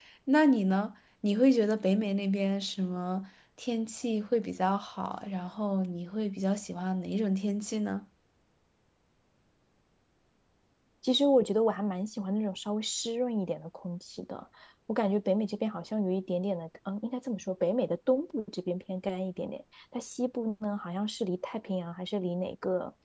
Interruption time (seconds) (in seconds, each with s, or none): none